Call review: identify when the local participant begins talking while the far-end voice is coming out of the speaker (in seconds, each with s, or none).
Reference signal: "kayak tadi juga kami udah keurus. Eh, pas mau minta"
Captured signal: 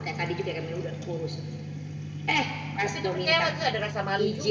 2.8 s